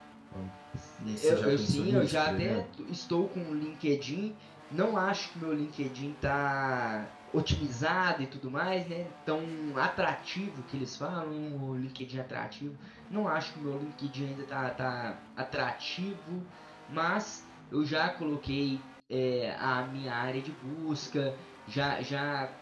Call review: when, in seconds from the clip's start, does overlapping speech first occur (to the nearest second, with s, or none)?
1 s